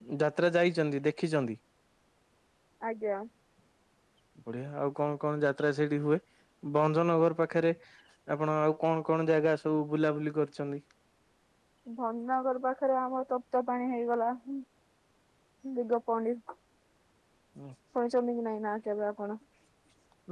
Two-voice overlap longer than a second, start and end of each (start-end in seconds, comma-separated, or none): none